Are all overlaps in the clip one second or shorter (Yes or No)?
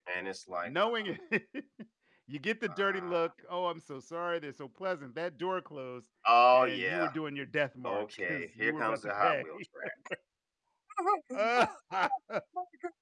No